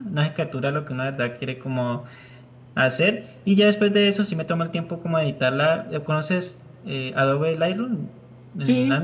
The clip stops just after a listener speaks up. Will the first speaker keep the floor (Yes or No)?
No